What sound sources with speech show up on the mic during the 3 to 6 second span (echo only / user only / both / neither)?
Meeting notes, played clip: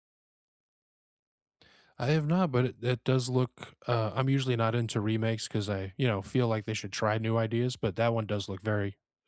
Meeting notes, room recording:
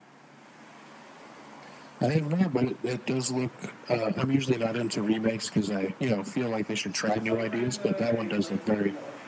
echo only